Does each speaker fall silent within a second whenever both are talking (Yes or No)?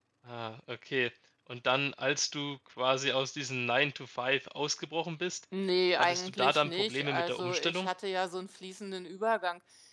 No